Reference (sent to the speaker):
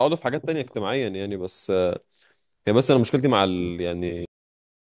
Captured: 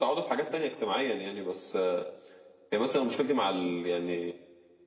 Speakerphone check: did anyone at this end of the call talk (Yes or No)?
No